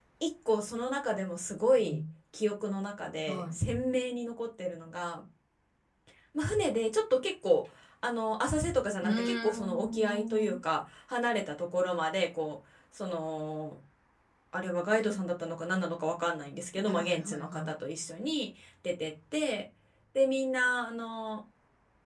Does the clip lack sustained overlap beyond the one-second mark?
No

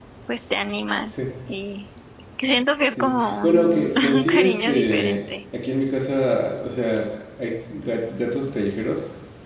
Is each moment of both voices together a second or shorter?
No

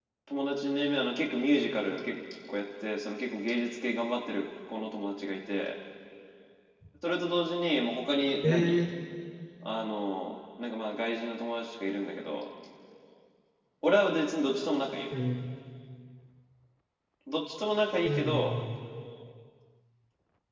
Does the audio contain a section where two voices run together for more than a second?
No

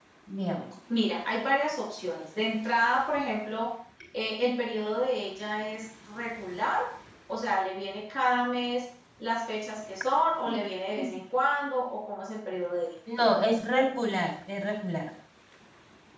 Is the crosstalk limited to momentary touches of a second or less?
Yes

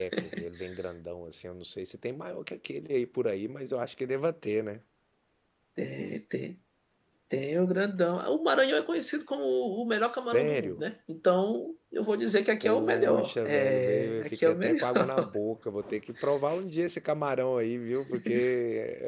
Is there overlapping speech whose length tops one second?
Yes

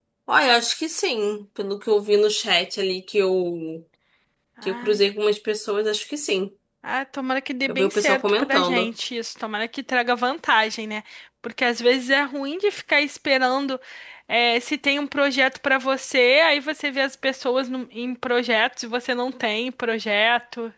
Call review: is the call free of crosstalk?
No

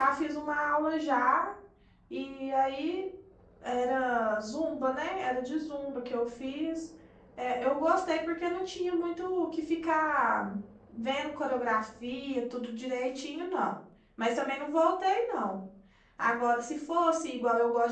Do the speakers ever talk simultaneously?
No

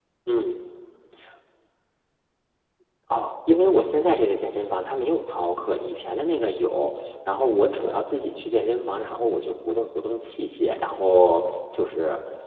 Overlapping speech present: No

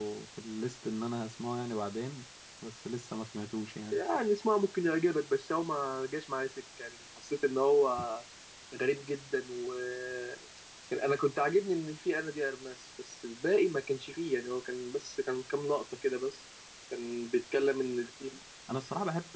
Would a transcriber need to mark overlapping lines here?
No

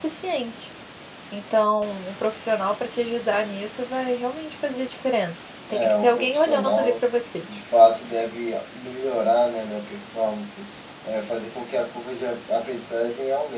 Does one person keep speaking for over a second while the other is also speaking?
Yes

